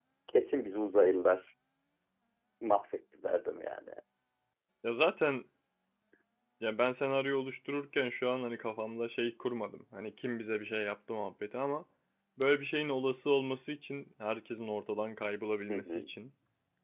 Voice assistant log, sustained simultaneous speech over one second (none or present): none